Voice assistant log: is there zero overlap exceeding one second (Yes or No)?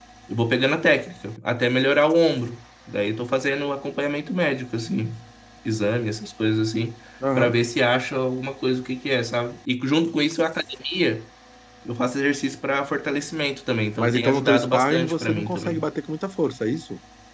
No